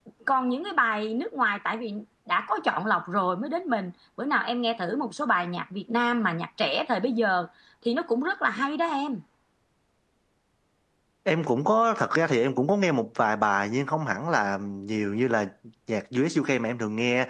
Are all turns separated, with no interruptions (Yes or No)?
Yes